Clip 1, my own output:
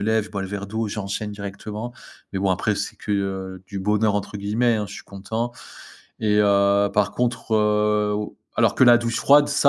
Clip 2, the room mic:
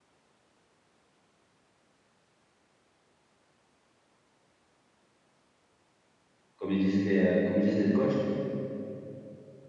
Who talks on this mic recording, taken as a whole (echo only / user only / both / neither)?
user only